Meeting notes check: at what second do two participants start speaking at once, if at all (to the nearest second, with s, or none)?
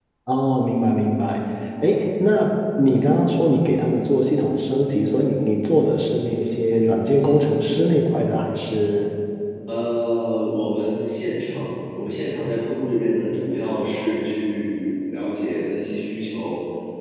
none